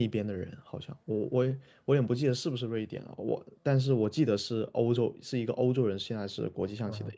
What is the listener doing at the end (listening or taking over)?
taking over